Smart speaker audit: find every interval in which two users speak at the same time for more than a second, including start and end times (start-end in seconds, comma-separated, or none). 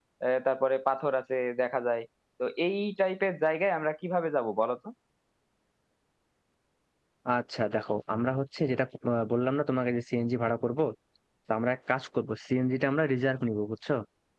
none